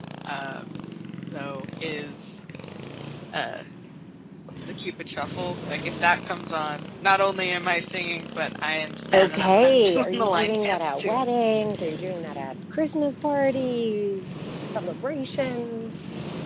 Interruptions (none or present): present